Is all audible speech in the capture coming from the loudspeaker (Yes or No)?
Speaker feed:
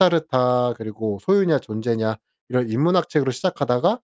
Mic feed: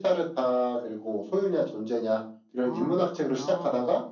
No